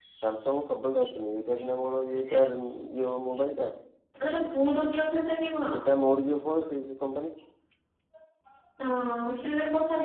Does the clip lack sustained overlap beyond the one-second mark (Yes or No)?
Yes